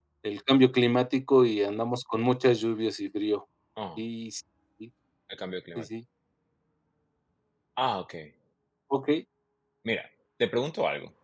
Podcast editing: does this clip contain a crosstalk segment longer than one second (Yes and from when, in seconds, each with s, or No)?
No